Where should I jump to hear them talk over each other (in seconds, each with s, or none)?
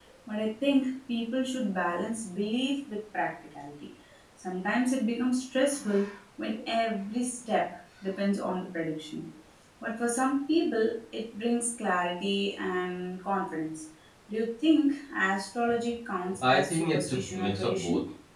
16.2 s